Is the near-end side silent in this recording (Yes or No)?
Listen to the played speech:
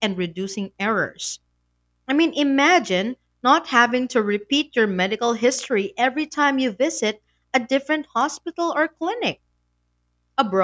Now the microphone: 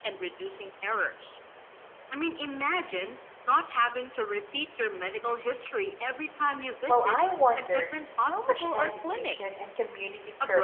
No